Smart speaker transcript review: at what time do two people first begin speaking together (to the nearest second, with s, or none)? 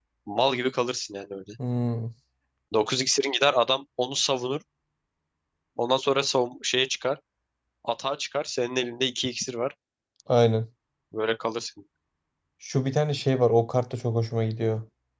none